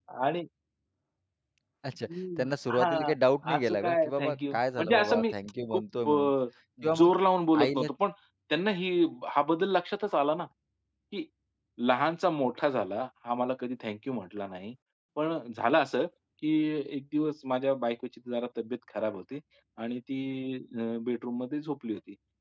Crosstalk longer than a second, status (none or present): present